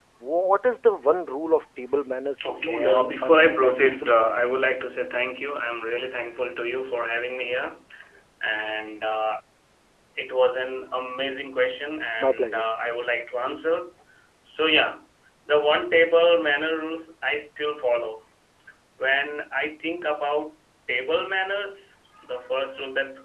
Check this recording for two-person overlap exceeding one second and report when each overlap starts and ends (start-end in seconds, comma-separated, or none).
2.5-4.4